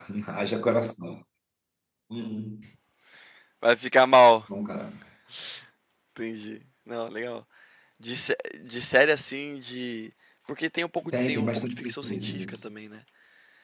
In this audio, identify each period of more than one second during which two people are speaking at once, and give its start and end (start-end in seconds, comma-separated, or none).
11.1-12.6